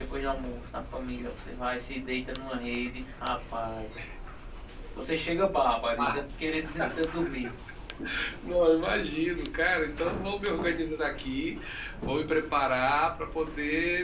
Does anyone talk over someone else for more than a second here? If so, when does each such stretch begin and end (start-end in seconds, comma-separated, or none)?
none